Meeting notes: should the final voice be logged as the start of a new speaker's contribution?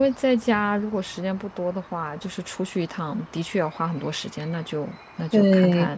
Yes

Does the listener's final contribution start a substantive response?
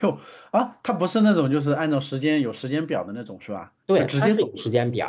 Yes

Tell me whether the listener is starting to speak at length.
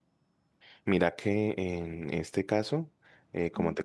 No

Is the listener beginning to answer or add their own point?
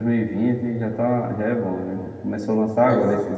No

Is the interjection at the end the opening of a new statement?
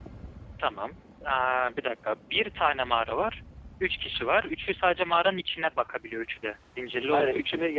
Yes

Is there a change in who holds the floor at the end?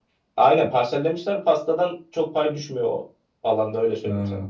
No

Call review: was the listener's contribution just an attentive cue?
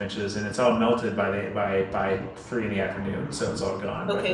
No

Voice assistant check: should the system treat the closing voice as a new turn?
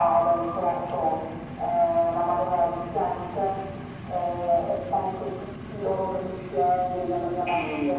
No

